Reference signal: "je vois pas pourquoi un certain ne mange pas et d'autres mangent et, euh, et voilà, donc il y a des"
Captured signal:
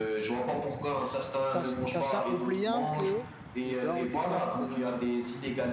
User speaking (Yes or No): Yes